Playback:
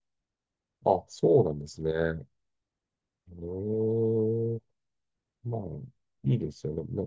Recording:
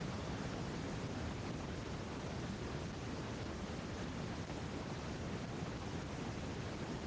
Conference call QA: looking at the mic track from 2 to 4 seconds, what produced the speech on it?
neither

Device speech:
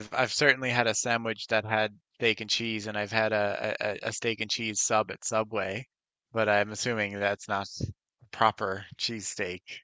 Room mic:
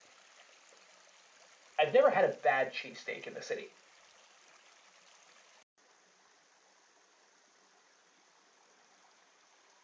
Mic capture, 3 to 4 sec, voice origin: user only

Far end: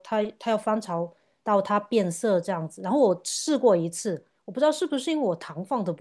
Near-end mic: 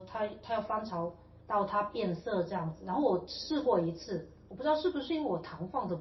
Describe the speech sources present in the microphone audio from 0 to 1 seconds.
echo only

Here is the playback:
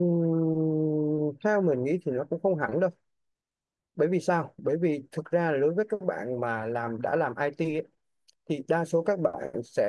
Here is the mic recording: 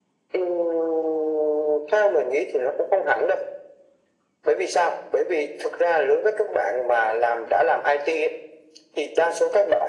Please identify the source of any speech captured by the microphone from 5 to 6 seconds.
echo only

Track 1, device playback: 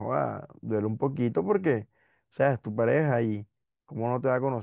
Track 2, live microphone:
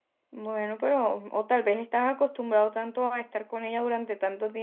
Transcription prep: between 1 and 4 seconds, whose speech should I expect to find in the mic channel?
user only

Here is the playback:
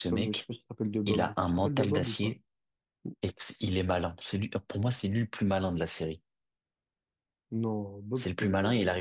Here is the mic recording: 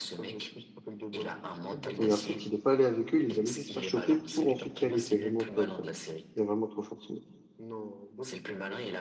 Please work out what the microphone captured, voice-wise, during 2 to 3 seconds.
both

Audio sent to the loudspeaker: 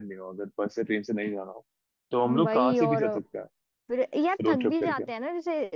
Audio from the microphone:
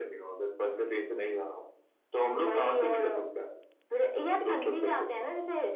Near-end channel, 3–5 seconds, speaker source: echo only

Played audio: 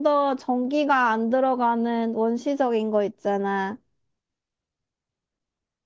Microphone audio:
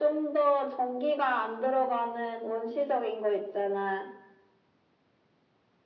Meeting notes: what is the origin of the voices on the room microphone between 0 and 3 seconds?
echo only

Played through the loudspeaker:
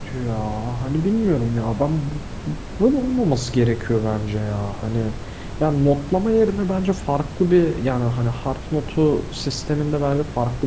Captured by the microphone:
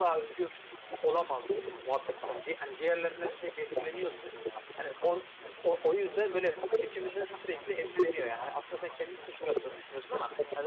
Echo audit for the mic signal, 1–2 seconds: both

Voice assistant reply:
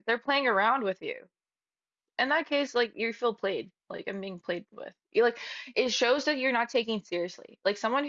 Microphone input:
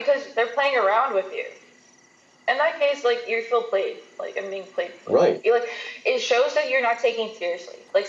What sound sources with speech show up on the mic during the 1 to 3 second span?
echo only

